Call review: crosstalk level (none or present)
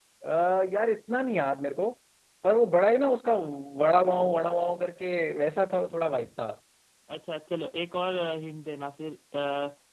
none